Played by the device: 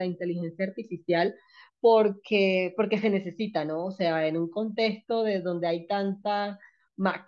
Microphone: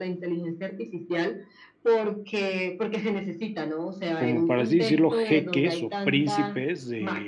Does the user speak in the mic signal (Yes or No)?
Yes